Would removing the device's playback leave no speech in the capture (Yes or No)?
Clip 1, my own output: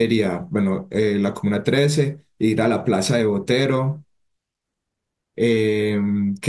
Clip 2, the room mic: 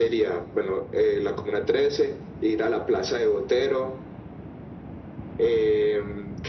Yes